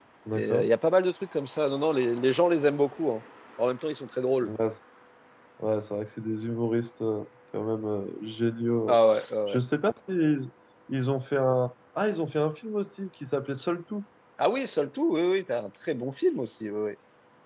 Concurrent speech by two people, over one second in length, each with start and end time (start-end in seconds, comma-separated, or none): none